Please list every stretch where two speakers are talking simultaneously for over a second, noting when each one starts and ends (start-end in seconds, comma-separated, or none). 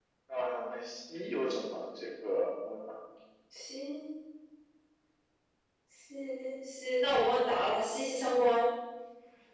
none